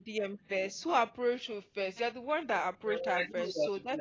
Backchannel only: No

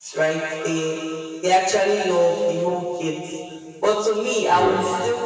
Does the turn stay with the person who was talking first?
Yes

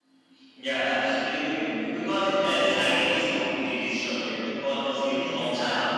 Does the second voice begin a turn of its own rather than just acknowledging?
No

